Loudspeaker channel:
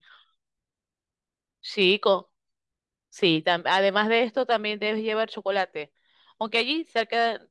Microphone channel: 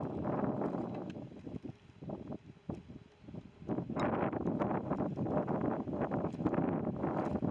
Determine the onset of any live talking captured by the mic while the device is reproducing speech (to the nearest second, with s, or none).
none